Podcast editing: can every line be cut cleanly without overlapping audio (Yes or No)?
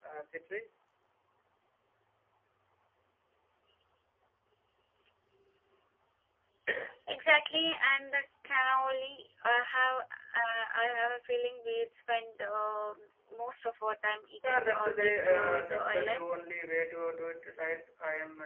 No